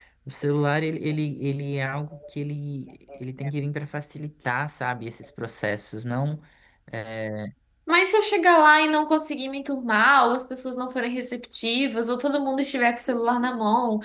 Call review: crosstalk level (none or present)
none